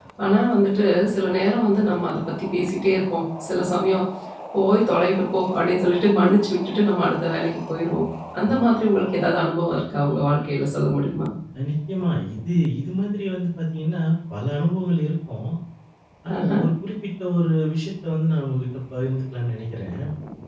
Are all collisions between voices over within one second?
Yes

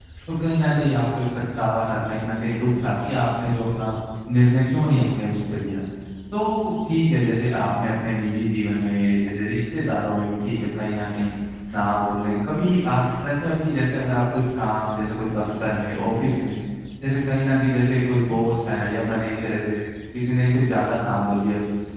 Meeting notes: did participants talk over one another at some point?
No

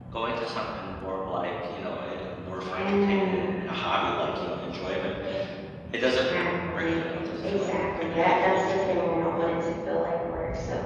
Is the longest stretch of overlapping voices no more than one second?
No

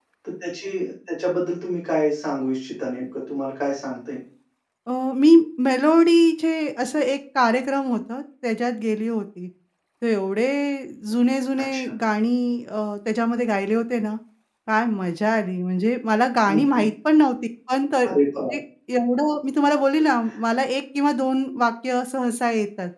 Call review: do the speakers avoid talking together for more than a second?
Yes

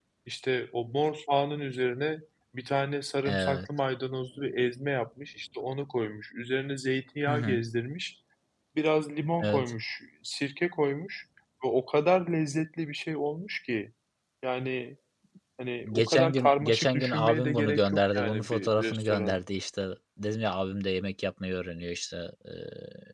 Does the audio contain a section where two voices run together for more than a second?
Yes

